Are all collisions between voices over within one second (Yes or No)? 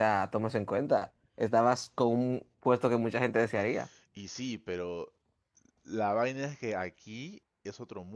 Yes